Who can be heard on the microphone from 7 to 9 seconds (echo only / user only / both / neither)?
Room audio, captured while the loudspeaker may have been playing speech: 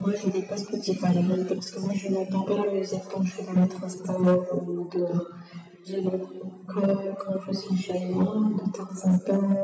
echo only